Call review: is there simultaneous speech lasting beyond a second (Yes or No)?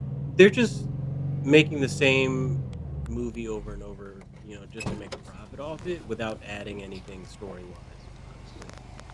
No